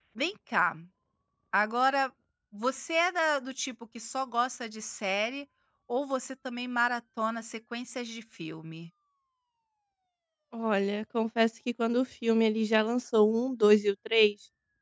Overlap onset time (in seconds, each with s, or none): none